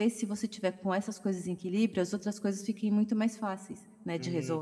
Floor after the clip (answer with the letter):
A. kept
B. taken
B